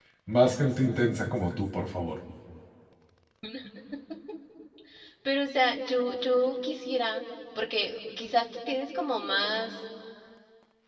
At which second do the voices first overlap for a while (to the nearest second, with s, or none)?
none